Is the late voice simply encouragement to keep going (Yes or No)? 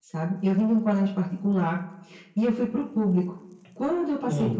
Yes